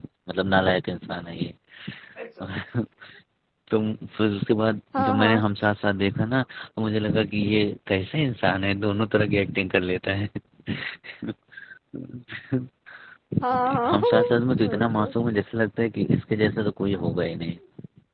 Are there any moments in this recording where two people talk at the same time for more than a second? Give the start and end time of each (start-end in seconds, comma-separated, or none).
13.4-15.0